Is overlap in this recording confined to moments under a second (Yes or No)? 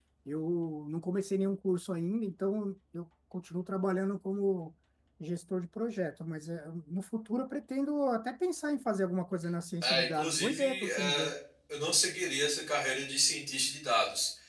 No